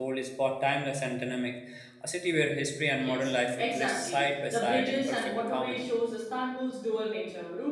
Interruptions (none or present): present